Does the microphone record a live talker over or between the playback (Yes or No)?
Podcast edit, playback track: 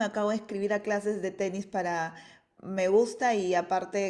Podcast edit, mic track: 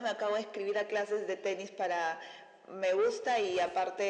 No